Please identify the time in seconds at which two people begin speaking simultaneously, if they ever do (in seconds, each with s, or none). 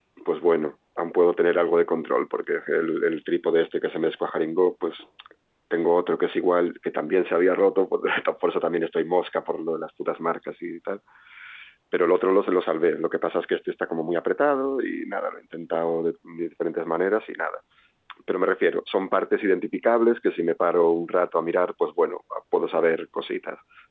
none